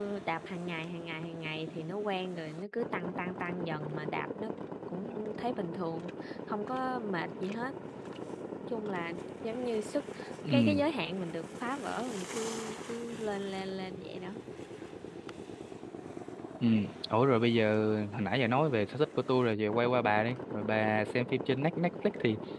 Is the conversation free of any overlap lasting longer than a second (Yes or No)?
Yes